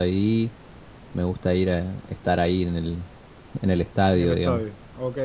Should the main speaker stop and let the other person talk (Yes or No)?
Yes